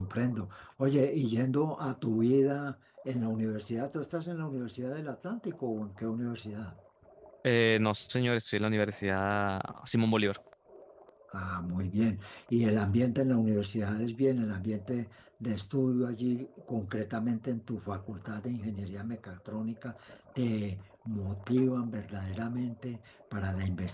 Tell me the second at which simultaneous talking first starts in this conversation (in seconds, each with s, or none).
none